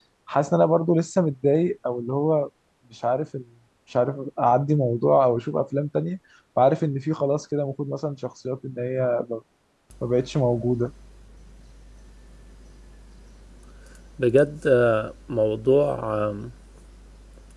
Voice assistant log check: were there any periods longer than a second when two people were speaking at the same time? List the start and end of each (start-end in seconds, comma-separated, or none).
none